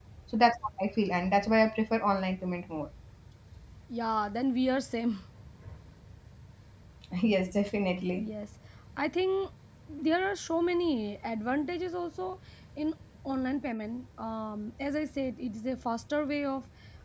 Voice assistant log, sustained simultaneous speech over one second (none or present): none